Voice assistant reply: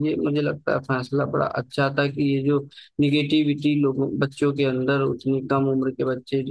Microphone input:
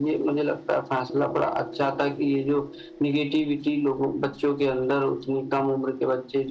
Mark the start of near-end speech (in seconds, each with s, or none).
none